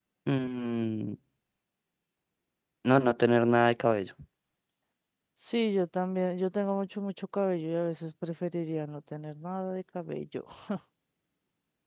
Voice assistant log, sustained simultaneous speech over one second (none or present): none